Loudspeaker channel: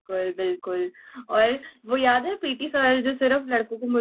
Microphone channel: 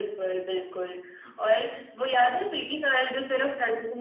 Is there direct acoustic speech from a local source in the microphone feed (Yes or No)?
No